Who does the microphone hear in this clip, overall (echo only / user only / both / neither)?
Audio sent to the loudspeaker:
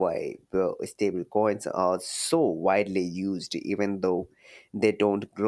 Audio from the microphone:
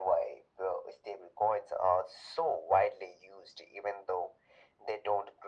echo only